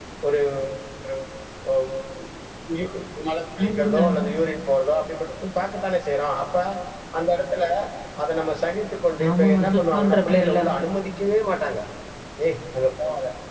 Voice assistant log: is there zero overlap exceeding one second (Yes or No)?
No